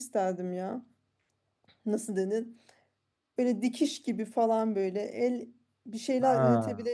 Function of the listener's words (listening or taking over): listening